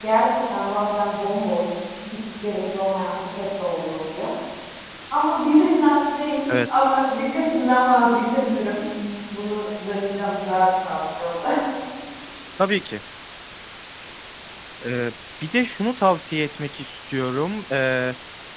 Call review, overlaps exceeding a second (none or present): none